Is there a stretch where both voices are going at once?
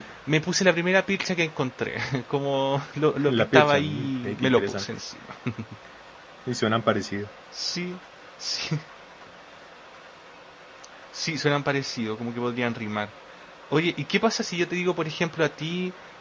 Yes, from 3.2 s

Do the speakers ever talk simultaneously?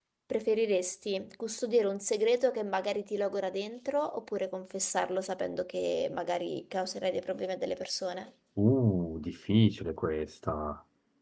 No

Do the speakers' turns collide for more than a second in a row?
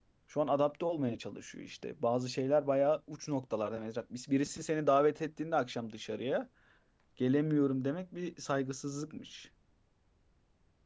No

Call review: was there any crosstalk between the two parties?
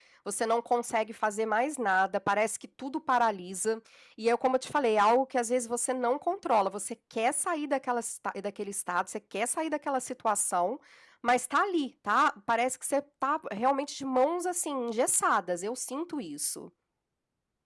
No

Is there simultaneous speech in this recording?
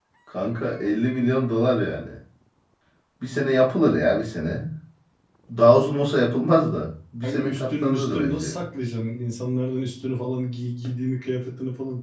Yes, from 7.2 s

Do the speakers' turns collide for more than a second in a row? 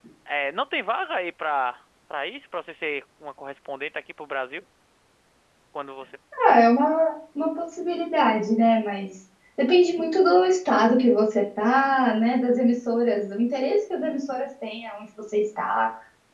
No

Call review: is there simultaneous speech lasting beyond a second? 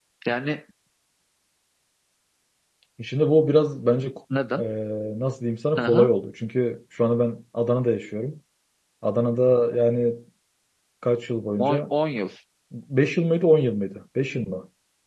No

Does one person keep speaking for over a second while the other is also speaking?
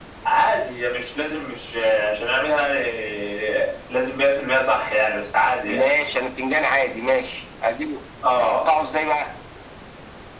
No

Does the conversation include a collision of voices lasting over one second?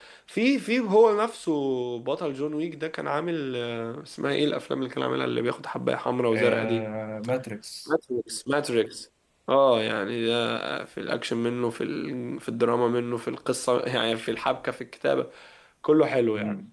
No

